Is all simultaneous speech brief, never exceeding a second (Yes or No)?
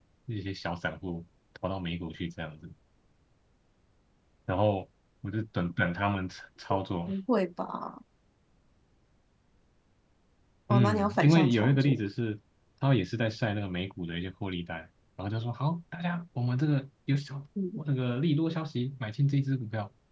No